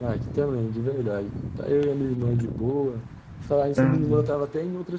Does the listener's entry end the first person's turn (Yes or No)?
No